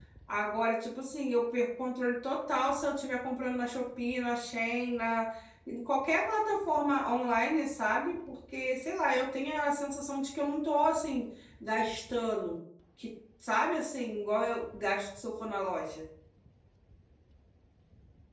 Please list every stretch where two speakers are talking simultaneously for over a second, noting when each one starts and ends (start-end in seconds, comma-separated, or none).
none